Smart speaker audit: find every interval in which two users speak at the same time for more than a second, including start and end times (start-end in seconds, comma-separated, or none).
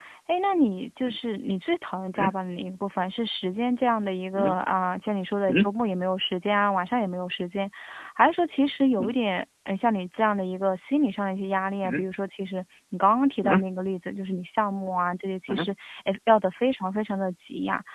none